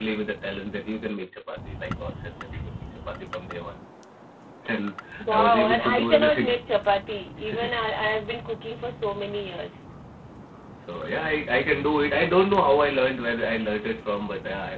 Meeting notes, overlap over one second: present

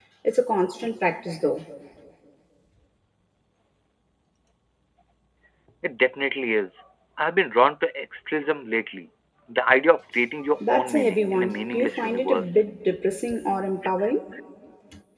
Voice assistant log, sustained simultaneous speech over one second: present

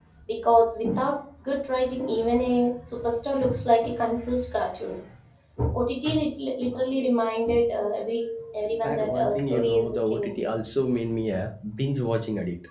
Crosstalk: present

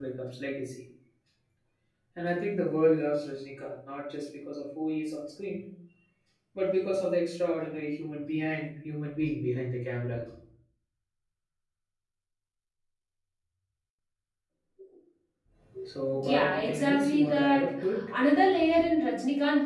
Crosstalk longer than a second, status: present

